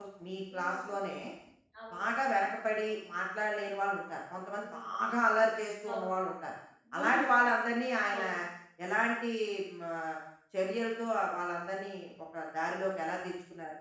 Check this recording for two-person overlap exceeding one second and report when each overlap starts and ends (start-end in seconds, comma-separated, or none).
none